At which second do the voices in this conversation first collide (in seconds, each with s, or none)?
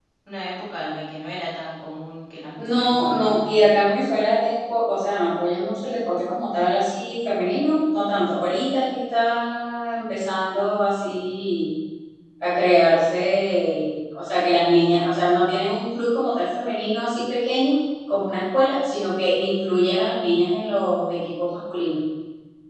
2.6 s